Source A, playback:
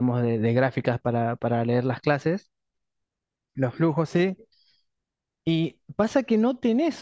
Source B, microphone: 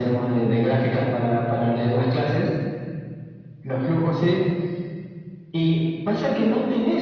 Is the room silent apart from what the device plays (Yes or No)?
Yes